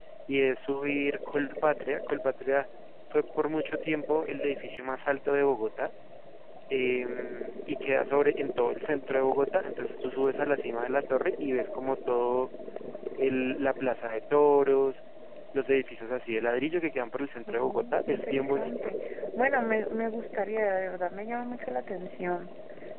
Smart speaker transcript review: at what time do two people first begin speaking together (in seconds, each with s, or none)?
17.5 s